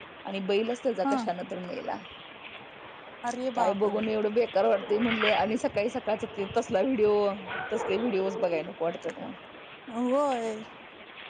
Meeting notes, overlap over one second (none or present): none